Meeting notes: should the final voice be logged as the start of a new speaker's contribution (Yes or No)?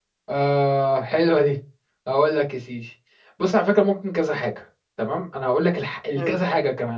No